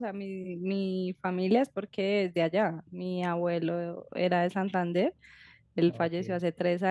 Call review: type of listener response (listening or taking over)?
listening